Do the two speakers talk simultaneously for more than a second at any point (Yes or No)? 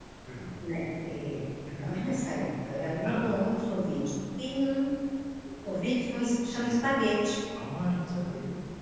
No